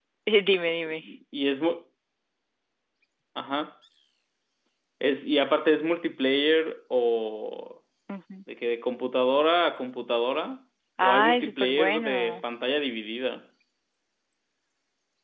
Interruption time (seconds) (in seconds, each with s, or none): 11.0 s